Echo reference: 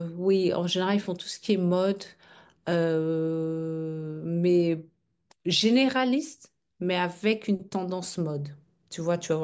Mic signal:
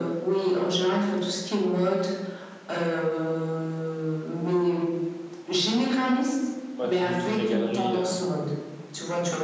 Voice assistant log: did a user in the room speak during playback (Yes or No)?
Yes